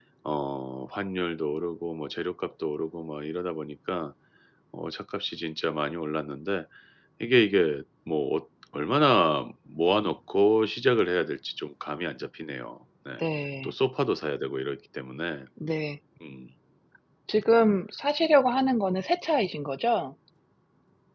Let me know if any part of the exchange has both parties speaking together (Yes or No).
No